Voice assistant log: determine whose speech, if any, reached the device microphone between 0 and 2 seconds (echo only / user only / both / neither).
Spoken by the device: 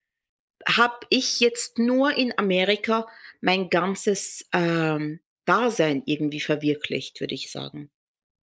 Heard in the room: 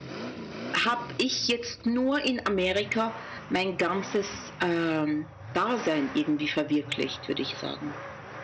echo only